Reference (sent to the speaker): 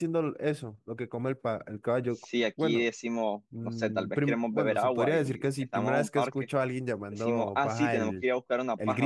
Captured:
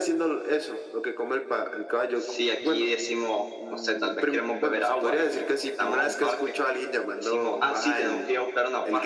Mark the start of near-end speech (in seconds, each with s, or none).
none